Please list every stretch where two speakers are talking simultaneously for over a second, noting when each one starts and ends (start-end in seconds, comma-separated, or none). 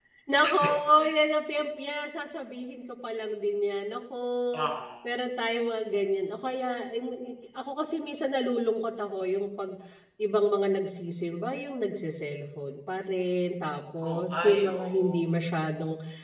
14.1-15.3